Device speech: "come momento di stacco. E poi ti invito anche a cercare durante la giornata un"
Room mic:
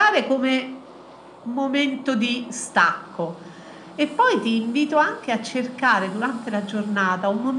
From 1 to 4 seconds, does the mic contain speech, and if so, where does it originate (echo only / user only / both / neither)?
echo only